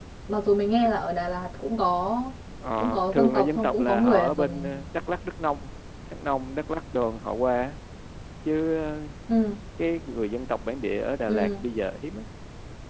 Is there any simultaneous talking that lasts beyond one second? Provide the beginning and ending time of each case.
2.8-4.8

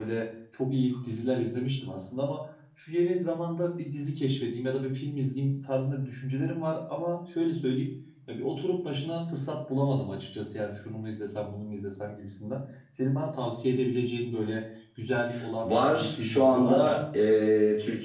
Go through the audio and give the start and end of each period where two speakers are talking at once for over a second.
15.6-17.0

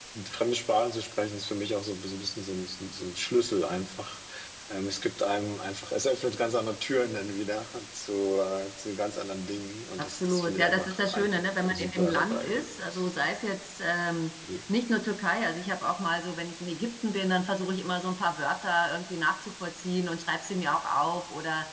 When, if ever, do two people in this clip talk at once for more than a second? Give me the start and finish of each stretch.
10.0-12.7

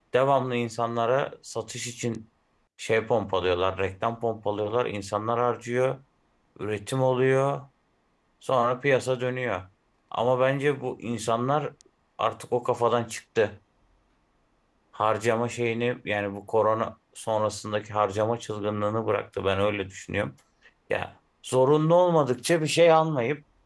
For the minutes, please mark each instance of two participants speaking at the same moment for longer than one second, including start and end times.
none

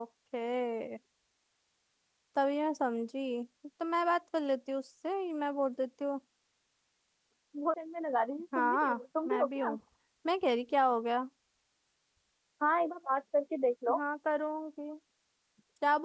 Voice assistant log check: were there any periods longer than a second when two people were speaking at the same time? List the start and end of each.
8.6-9.8

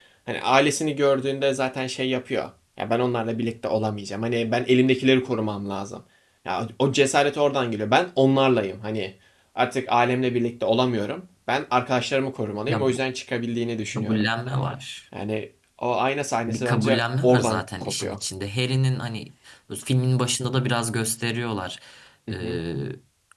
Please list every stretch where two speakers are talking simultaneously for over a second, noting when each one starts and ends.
16.5-18.2

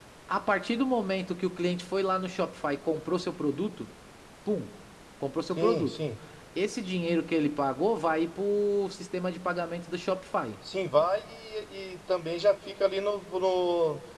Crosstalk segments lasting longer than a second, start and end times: none

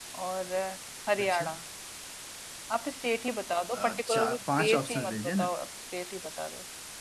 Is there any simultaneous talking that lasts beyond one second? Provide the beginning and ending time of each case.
3.7-5.5

